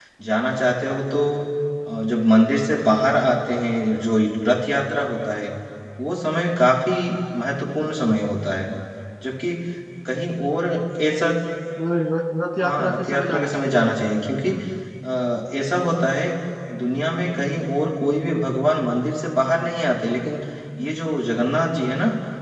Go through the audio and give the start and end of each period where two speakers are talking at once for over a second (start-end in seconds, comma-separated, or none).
12.6-13.9